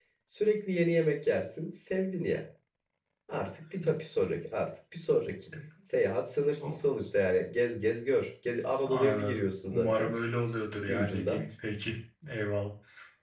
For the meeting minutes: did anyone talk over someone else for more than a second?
Yes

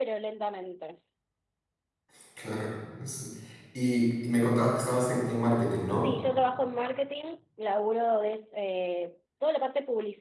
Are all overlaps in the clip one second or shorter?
Yes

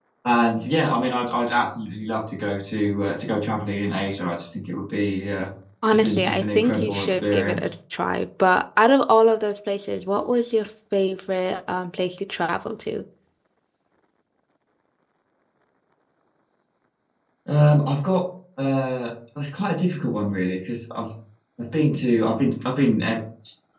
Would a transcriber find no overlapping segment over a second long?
No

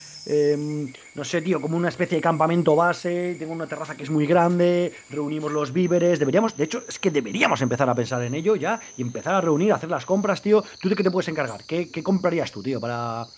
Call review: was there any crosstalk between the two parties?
No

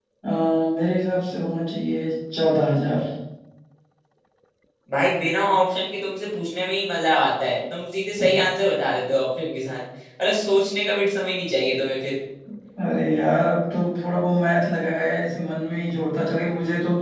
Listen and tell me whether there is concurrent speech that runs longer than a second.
No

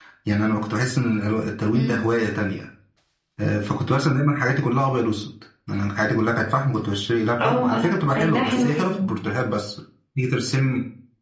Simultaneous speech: Yes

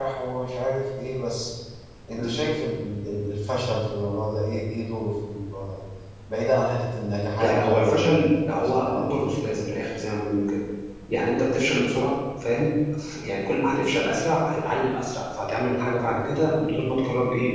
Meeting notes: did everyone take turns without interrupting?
No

